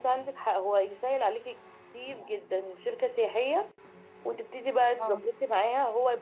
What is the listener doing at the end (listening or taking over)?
listening